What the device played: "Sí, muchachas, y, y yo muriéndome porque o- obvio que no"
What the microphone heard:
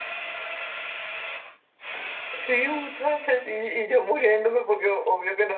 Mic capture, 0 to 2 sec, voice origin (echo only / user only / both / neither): neither